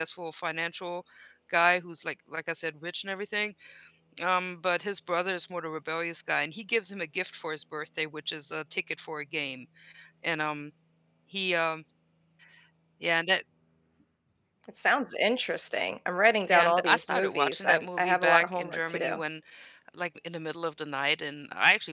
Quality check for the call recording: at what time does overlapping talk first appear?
16.4 s

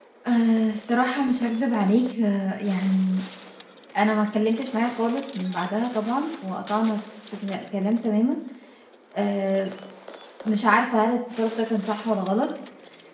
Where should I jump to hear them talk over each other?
none

